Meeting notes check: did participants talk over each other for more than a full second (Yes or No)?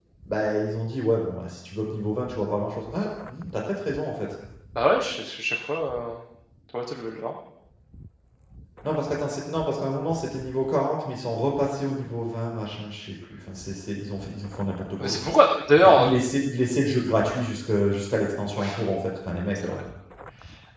No